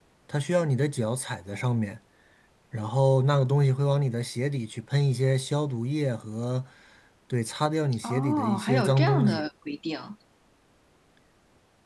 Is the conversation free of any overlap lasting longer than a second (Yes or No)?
No